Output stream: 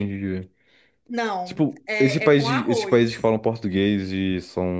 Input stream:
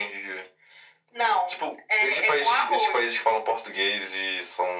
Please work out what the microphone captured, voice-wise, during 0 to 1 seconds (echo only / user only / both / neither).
echo only